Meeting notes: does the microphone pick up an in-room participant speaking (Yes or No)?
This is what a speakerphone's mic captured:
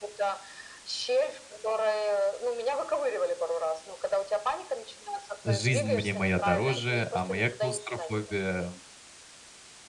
Yes